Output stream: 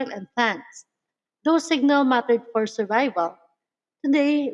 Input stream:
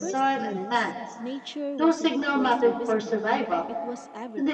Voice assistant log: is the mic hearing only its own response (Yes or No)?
No